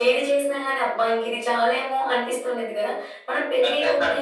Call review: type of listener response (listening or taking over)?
listening